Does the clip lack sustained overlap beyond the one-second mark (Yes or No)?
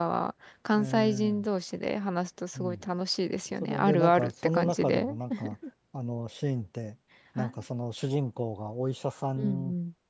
No